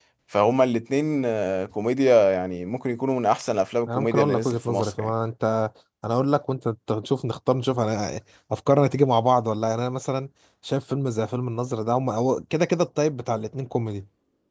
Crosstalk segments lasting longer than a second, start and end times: 3.9-5.1

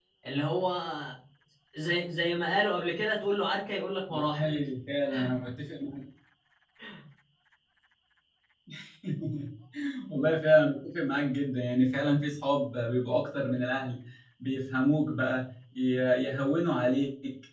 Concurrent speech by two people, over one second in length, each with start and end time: none

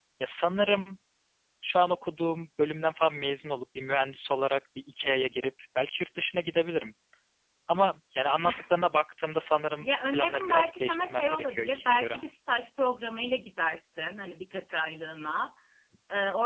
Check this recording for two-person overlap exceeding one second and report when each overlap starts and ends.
9.8-12.2

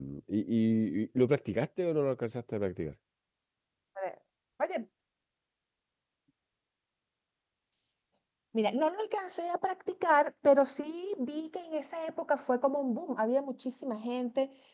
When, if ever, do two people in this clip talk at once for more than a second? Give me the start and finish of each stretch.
none

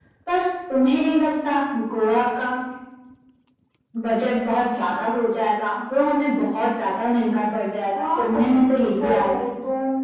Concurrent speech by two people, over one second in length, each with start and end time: 8.0-9.5

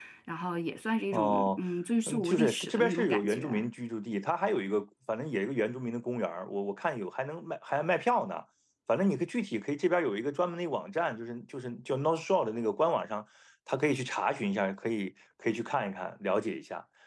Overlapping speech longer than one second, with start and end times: 2.1-3.5

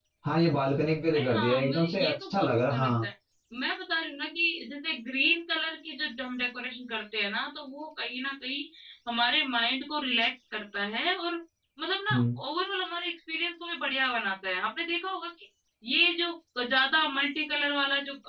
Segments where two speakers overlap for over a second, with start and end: 1.1-3.0

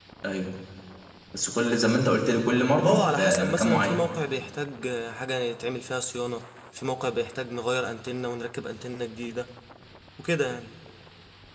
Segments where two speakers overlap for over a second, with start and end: 2.8-4.0

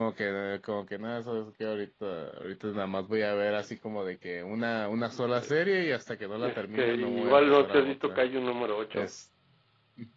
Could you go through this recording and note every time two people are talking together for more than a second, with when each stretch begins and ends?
6.4-8.2

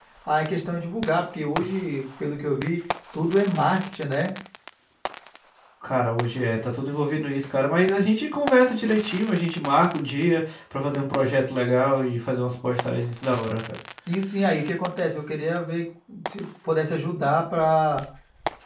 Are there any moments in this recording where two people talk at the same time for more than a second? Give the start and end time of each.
none

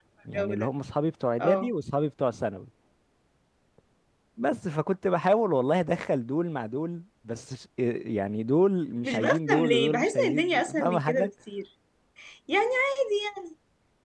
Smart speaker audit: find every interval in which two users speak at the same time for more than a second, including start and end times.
9.0-11.3

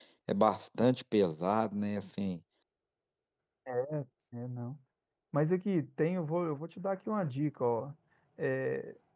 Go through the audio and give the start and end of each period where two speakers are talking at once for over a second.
none

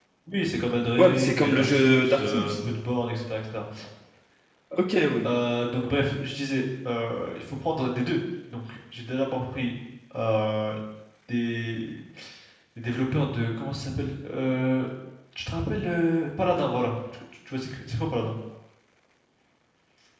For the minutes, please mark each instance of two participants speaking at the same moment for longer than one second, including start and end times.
1.0-2.5

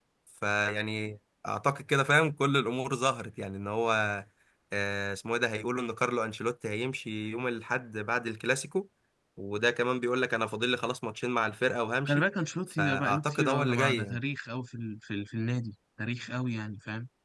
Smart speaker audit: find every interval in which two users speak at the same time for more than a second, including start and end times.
12.7-14.2

